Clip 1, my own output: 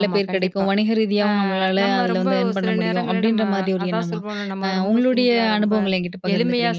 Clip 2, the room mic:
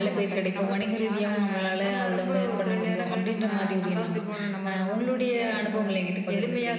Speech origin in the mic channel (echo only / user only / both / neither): both